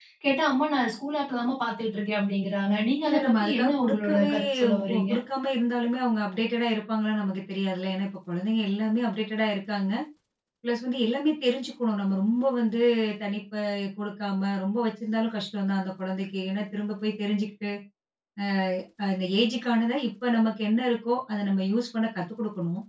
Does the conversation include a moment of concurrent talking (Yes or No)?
Yes